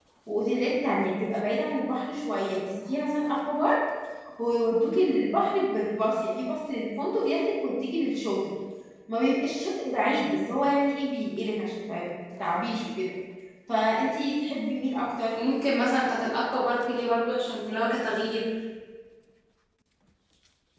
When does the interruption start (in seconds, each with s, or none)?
none